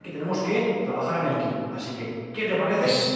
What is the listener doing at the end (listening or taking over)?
listening